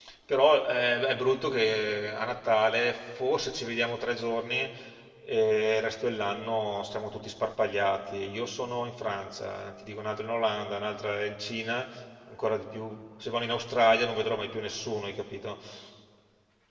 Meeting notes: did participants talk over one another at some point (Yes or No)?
No